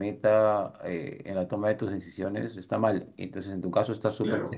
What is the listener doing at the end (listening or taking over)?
listening